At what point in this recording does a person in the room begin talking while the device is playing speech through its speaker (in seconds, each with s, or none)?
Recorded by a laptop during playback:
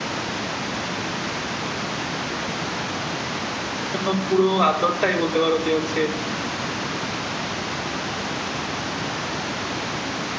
3.9 s